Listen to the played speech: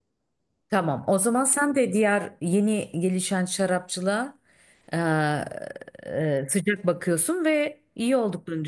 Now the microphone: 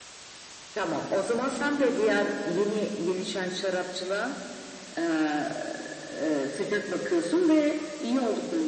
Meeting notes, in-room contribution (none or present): none